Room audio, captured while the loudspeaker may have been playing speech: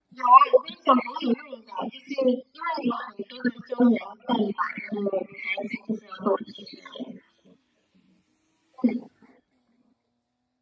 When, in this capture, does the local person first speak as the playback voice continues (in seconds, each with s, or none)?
none